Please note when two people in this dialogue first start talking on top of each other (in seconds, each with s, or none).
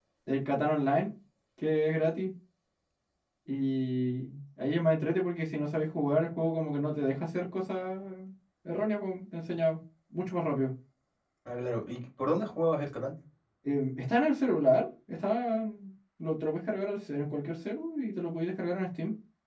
none